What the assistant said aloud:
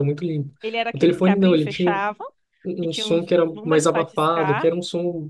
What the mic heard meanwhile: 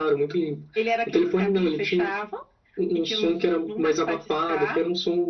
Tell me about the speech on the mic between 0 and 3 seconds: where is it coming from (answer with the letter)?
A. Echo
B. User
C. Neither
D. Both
A